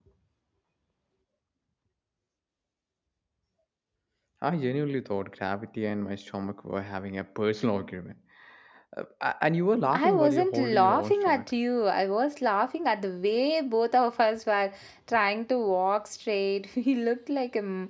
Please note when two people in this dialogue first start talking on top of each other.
10 s

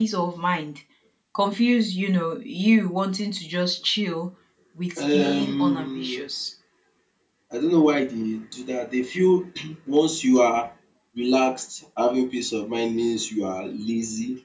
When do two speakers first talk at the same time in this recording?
5 s

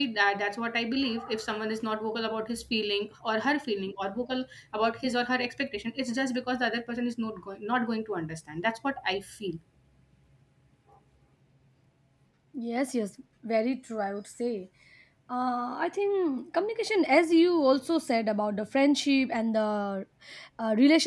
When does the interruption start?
none

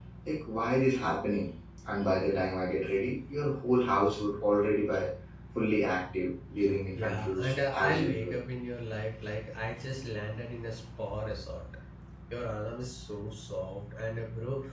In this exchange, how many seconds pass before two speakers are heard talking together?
7 s

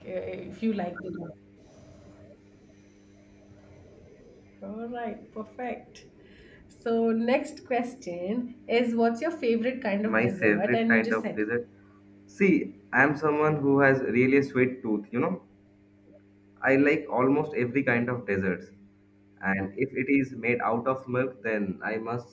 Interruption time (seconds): 10 s

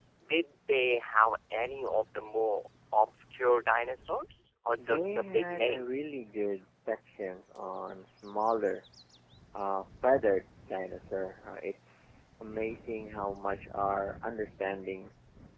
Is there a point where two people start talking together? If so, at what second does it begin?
5 s

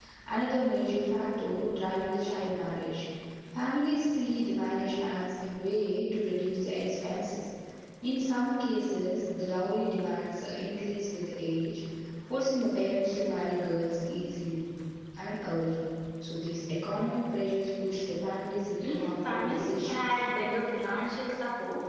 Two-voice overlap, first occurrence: 19 s

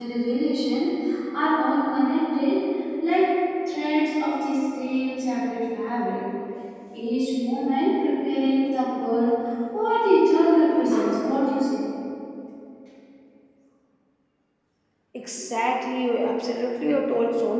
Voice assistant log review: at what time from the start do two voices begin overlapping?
none

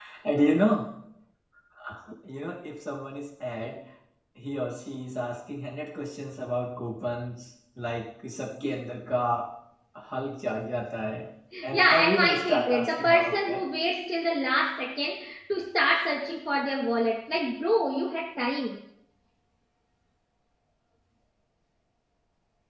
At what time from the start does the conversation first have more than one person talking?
12 s

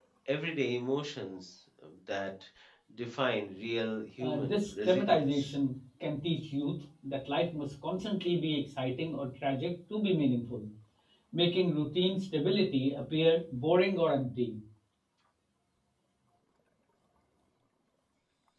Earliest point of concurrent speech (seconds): 4 s

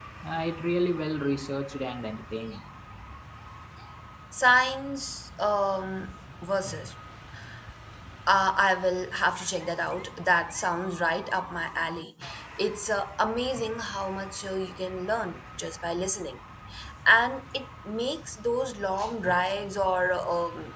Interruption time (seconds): none

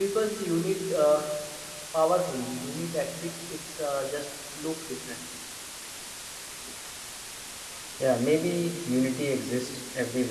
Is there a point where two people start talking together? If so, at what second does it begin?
none

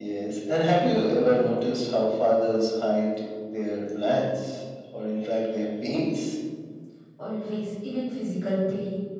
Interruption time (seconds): none

